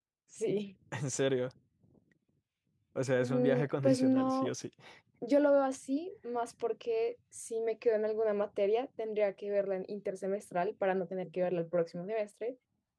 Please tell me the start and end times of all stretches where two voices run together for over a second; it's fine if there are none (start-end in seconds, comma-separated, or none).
3.1-4.5